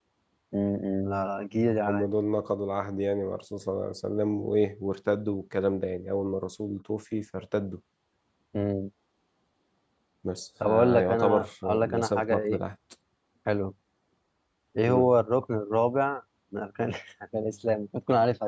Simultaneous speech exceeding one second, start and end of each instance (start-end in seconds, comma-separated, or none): 10.6-12.6